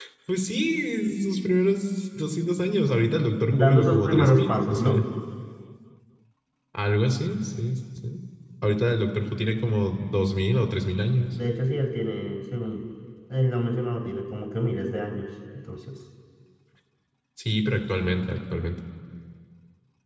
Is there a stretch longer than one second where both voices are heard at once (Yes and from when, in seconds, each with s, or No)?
Yes, from 3.5 s